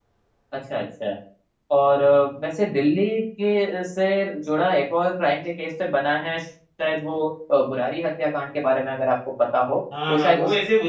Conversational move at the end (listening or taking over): taking over